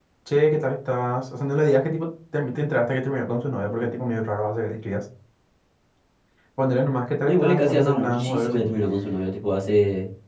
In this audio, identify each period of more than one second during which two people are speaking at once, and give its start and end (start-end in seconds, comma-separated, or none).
7.2-8.7